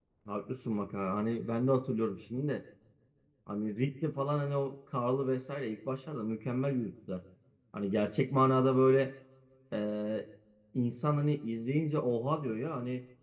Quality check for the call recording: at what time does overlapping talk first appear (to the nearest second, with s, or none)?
none